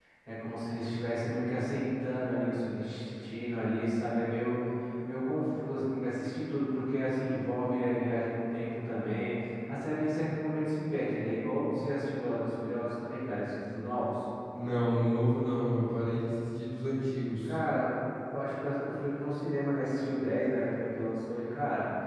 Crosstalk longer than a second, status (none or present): none